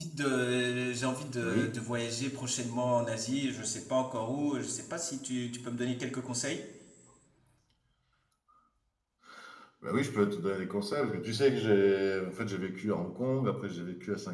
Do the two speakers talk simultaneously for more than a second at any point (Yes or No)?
No